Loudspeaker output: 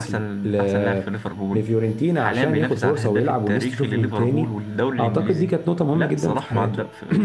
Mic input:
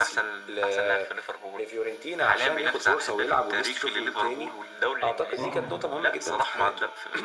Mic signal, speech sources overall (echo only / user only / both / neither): both